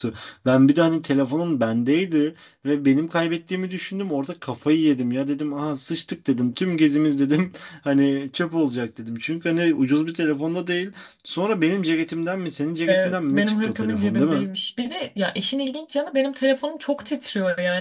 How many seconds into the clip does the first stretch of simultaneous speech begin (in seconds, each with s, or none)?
12.9 s